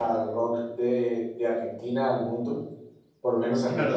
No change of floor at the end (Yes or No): No